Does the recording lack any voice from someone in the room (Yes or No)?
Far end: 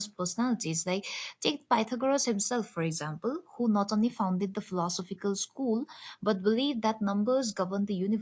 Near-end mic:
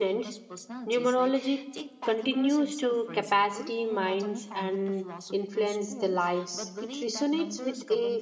No